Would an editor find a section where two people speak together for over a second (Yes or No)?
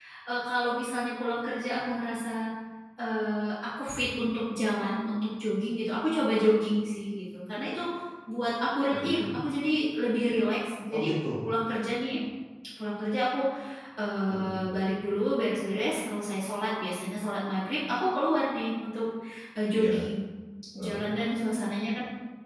No